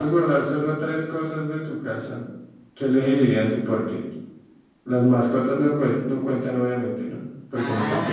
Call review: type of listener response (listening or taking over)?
taking over